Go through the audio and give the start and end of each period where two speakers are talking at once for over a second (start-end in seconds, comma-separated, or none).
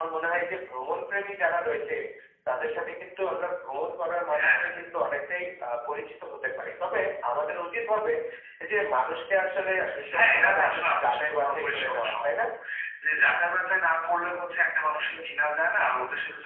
10.1-12.4